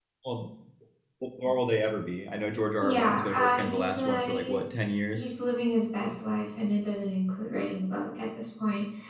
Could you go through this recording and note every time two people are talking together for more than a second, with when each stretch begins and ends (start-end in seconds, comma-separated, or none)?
2.8-5.3